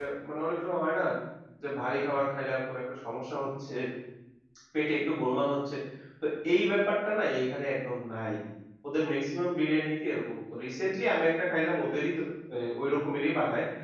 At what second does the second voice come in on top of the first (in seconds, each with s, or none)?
none